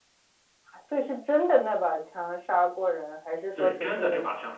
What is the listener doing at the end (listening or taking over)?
taking over